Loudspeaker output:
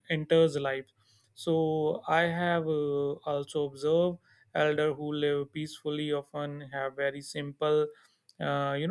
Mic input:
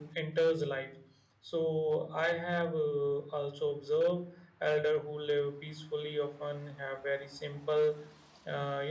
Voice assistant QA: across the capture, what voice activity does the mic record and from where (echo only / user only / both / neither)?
echo only